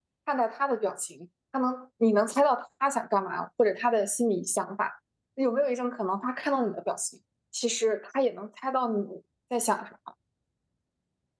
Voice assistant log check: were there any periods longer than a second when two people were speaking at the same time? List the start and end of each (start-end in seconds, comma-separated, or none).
none